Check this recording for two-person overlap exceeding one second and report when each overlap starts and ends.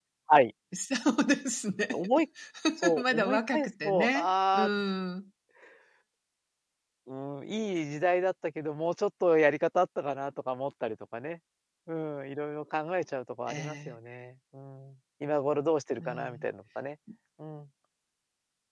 3.0-4.6

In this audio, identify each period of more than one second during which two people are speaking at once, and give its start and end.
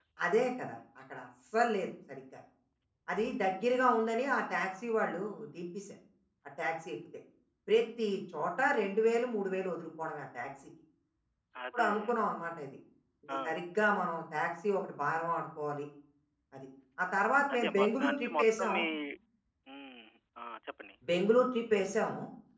17.5-18.7

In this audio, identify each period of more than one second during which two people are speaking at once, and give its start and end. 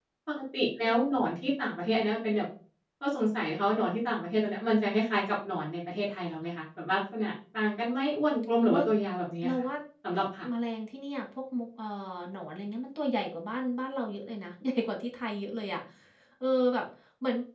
none

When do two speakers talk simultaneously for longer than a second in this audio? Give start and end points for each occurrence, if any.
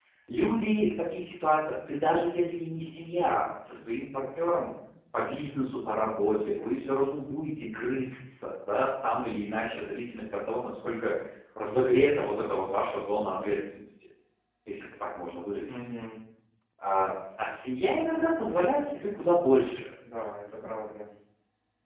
none

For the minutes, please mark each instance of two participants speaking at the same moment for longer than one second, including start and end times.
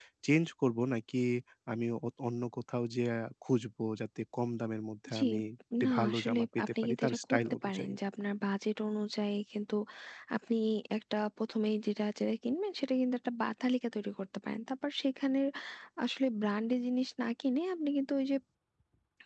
5.8-7.9

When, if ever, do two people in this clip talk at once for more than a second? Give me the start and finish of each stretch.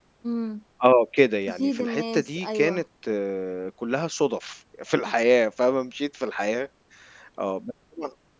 1.5-2.8

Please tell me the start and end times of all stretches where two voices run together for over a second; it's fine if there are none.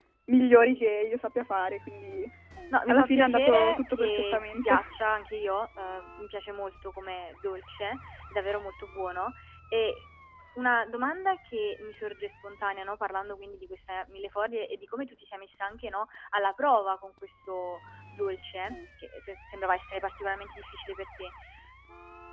2.9-4.9

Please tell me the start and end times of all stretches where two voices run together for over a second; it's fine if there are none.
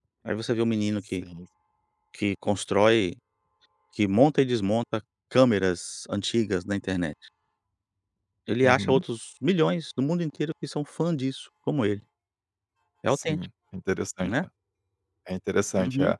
none

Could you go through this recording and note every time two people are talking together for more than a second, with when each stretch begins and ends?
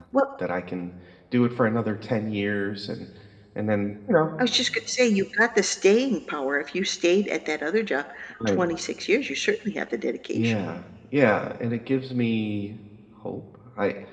none

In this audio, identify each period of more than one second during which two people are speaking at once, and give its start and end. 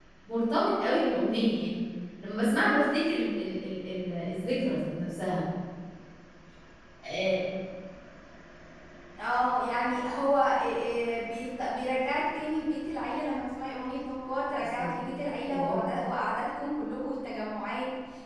none

